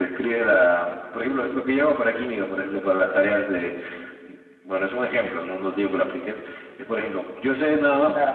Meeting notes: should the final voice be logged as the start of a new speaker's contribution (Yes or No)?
No